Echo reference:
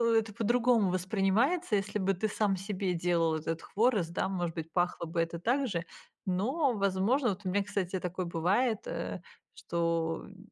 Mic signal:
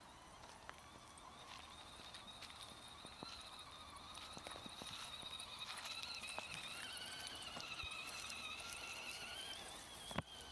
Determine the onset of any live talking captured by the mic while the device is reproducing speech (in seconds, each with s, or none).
none